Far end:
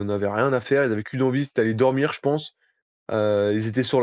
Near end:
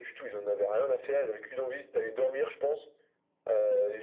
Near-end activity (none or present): none